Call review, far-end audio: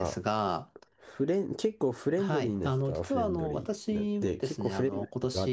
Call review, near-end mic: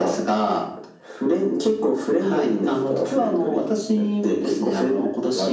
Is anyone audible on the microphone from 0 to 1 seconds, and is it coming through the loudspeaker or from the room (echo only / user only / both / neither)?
echo only